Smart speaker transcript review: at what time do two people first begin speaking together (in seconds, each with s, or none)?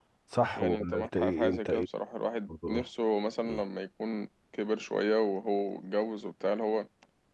0.6 s